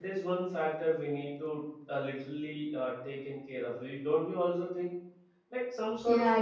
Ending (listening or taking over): listening